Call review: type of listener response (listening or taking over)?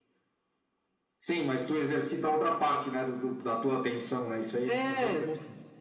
taking over